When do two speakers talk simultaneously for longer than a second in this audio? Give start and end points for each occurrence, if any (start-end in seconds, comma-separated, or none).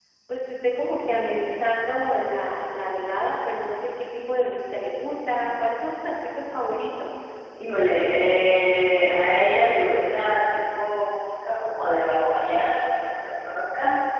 none